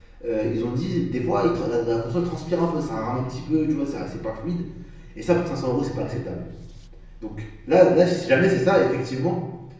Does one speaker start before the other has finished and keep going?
No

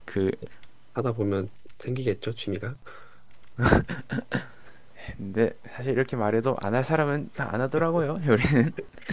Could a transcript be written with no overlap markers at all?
Yes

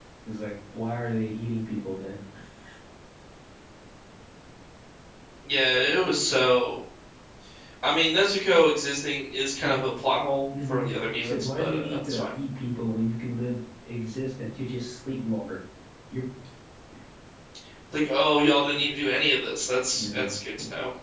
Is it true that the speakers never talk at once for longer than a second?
No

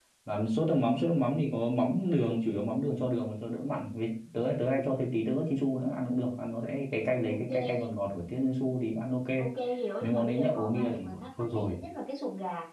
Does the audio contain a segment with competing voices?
Yes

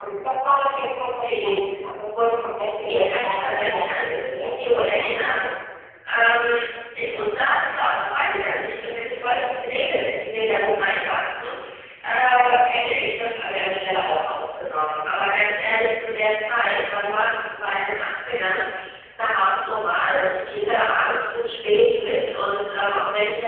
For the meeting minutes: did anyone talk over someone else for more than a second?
Yes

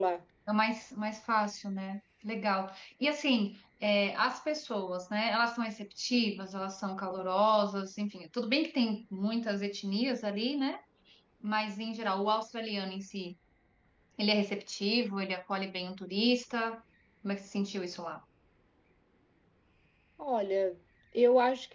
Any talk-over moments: No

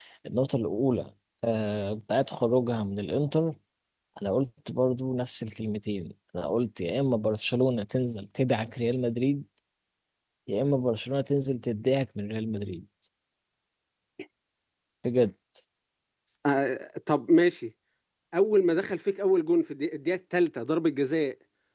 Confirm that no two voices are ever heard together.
Yes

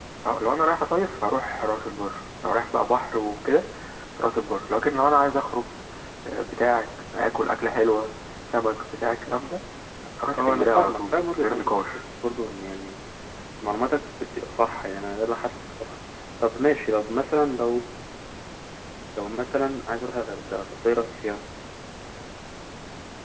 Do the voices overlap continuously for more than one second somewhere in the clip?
Yes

